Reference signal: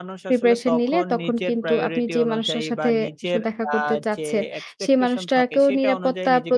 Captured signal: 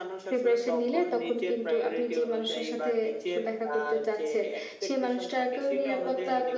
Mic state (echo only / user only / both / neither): echo only